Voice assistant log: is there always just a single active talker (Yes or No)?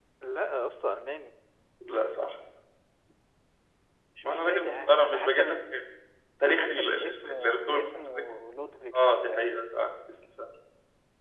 No